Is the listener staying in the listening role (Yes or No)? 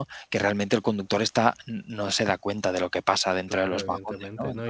No